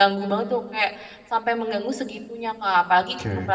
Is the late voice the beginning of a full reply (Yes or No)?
No